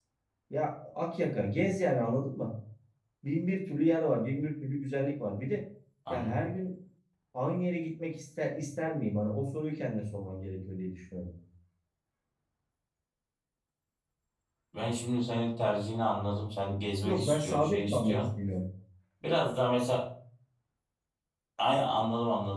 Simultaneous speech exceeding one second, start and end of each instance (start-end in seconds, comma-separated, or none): 17.0-18.2